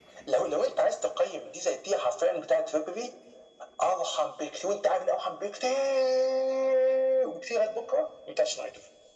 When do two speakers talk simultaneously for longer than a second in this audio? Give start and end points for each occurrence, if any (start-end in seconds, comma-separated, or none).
none